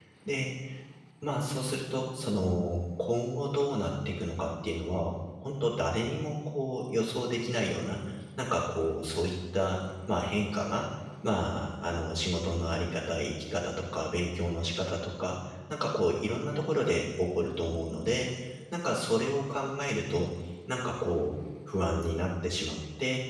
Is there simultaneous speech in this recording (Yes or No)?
No